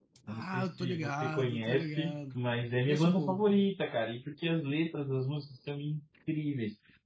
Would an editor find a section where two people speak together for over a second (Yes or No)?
Yes